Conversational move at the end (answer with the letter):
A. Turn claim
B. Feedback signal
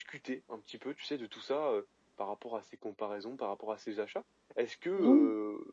B